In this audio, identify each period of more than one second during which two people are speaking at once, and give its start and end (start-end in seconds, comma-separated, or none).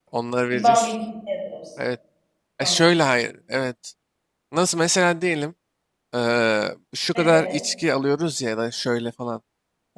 none